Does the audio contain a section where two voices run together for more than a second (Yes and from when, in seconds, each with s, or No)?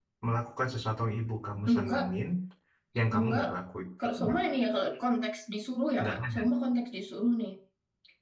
No